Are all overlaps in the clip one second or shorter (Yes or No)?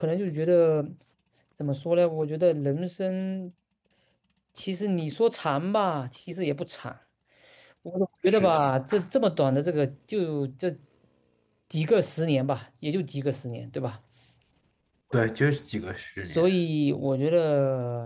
Yes